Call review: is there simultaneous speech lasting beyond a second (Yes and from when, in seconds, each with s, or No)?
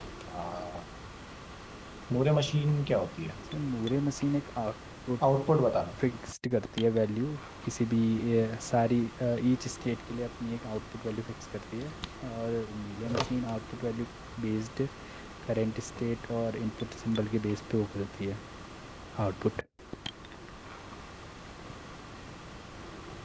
No